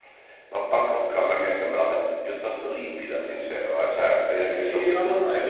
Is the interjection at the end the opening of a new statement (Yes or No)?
Yes